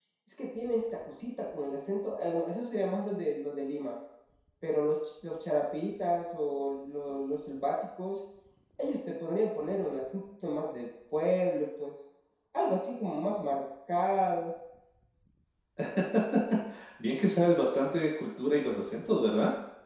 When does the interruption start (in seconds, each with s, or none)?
none